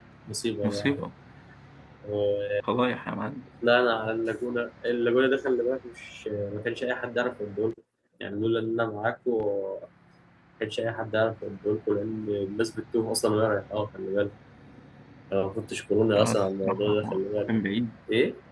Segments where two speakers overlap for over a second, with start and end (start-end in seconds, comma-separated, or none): 16.1-17.6